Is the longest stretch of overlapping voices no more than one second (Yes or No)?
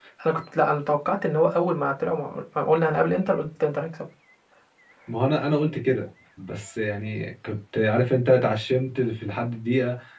Yes